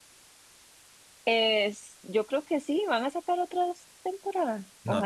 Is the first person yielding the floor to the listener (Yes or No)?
Yes